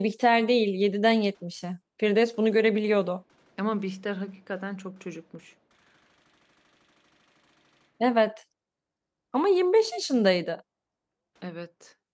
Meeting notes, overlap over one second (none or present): none